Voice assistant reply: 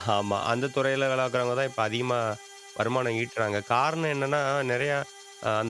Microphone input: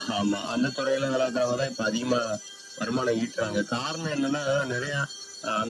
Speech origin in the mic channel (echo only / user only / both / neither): both